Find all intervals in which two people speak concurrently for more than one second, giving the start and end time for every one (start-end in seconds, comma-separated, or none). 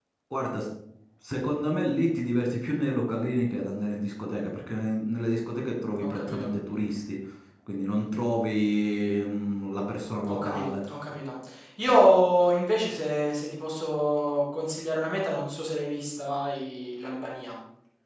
none